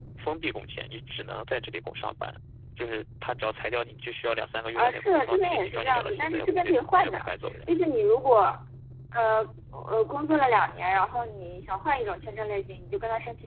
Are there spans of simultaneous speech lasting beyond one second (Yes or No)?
Yes